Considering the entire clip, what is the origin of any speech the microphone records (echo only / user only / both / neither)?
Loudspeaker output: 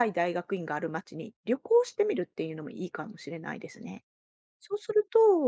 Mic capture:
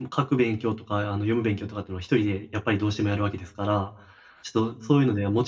user only